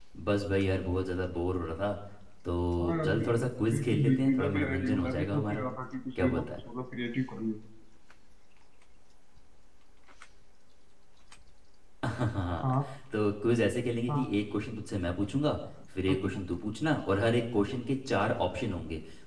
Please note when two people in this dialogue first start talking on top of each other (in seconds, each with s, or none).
2.8 s